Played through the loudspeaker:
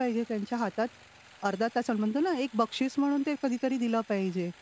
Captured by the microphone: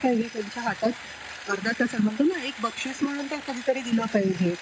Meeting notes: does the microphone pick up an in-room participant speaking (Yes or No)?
No